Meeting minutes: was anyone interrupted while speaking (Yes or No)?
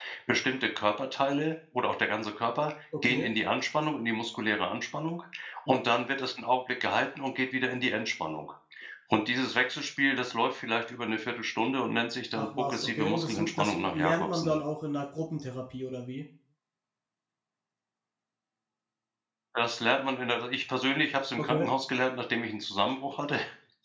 Yes